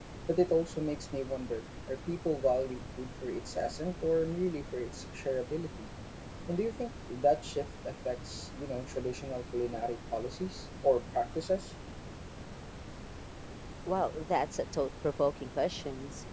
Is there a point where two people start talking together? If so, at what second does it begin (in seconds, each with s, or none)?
none